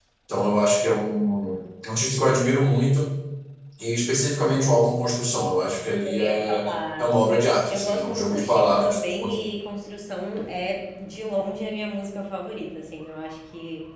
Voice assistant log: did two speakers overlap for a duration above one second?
Yes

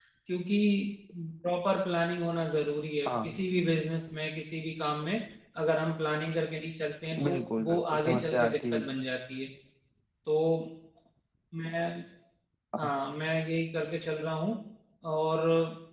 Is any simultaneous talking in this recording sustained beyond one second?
Yes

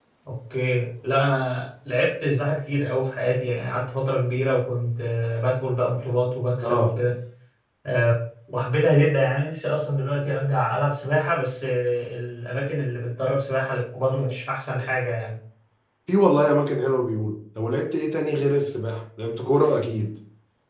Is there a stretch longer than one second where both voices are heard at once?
No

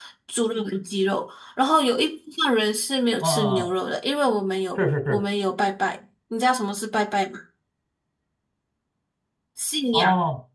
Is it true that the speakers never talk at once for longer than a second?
Yes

